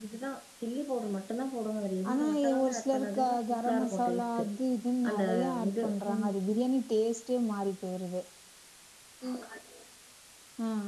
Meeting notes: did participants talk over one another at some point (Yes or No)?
Yes